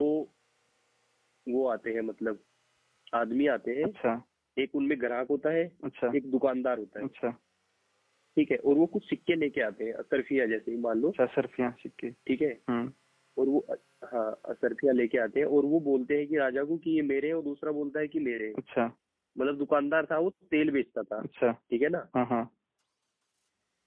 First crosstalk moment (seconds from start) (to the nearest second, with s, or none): none